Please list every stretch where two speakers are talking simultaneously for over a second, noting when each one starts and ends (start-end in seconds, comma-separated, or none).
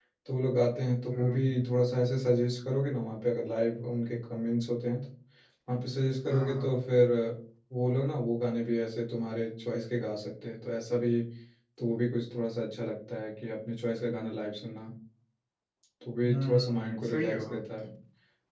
16.2-17.5